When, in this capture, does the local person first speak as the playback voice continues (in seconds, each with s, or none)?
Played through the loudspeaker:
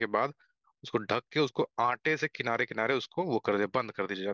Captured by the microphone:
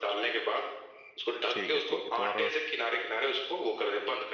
1.5 s